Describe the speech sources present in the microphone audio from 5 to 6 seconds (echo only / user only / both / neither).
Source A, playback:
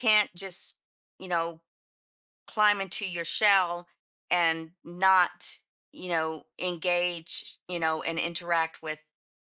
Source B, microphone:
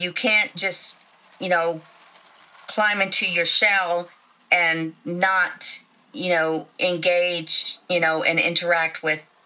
echo only